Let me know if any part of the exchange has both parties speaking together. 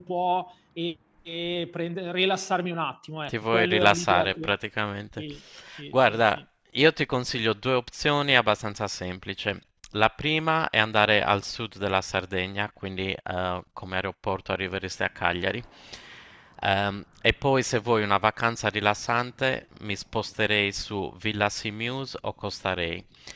Yes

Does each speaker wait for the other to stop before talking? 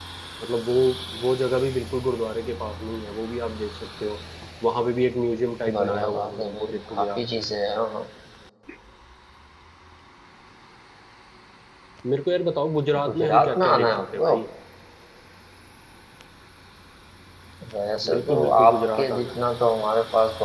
No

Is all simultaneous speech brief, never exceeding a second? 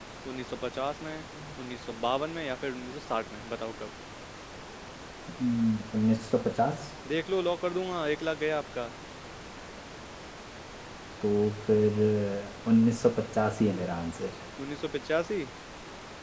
Yes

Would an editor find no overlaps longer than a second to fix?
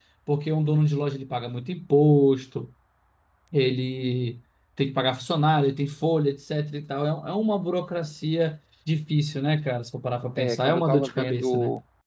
No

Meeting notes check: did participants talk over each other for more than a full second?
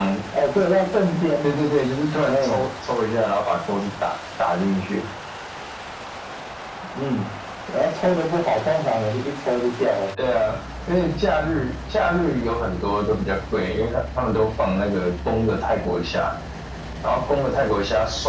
No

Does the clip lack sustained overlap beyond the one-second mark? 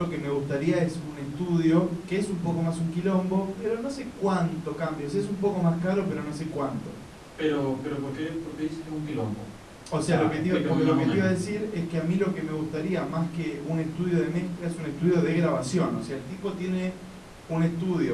No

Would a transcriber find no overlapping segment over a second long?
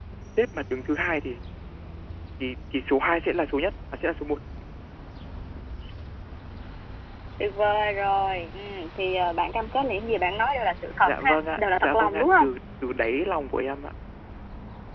No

